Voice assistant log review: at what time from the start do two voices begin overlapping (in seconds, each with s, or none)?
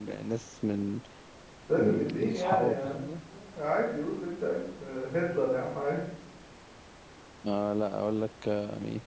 1.8 s